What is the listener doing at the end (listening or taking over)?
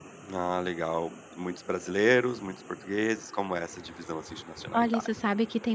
taking over